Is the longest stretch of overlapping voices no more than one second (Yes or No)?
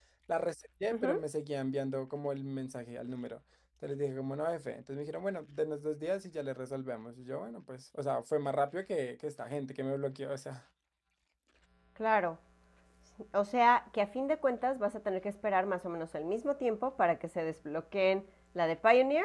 Yes